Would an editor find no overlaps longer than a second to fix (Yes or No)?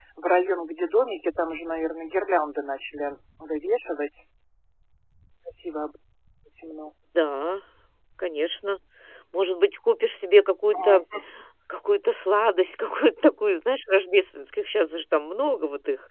Yes